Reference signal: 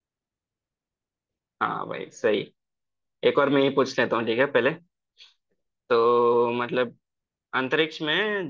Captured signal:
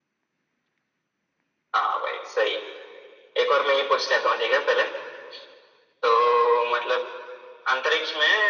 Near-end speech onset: none

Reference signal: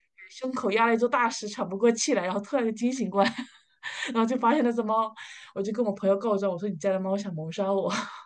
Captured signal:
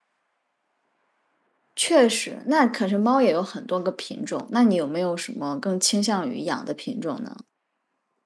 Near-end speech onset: 1.8 s

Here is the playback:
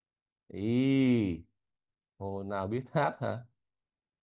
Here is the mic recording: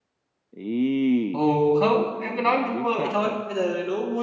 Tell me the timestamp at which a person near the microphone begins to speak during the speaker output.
1.3 s

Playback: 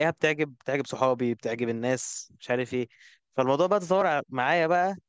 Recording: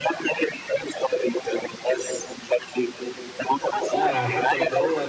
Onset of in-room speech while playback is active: 3.9 s

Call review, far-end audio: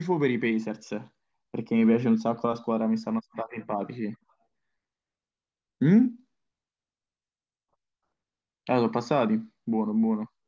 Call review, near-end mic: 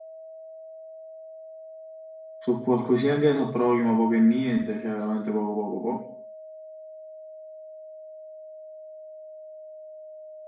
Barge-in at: 2.4 s

